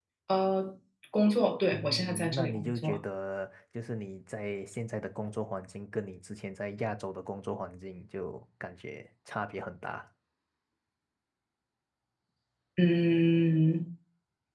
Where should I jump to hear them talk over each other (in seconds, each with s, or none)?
1.7 s